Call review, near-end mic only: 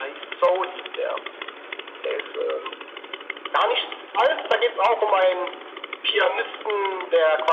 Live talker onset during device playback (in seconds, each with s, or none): none